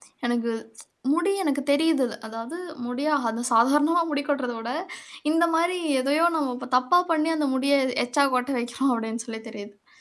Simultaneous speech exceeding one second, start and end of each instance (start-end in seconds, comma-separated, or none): none